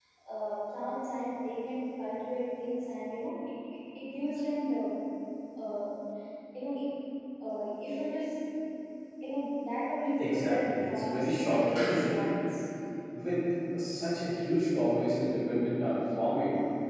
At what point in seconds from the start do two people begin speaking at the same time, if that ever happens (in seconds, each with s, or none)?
10.2 s